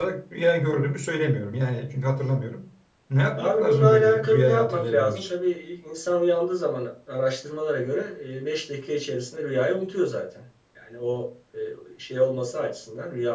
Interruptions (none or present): present